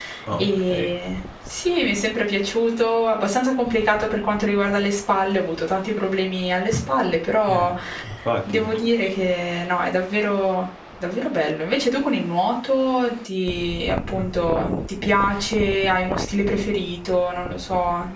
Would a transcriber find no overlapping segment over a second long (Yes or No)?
Yes